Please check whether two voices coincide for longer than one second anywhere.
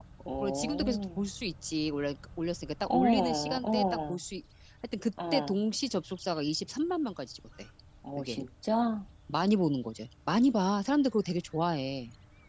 Yes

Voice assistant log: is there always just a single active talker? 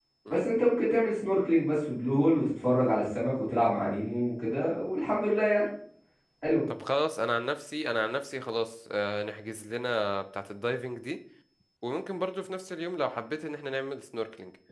Yes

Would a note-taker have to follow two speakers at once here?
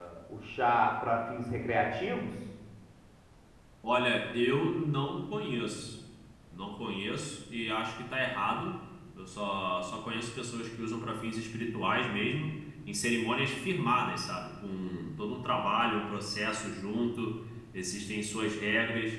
No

